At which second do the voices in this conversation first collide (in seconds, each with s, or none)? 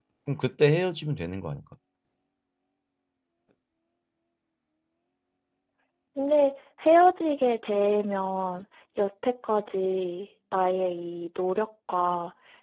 none